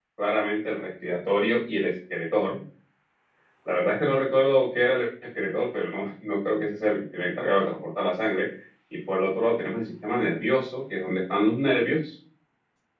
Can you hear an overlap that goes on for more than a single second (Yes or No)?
No